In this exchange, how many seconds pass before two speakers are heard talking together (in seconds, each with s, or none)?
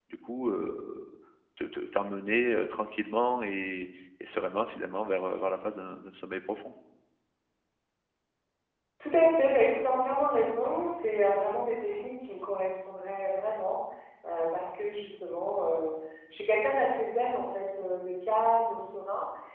none